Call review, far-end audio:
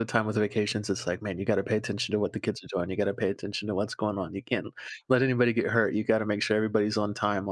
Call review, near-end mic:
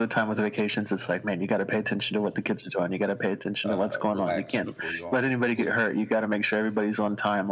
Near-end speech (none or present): present